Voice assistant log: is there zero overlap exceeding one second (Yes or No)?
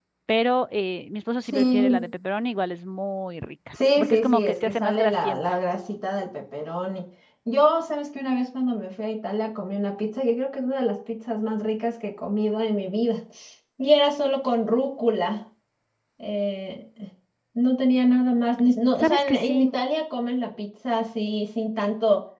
No